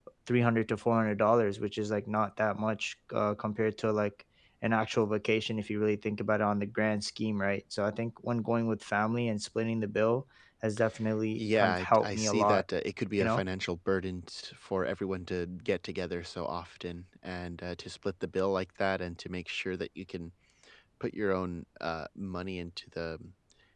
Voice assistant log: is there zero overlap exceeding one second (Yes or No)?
No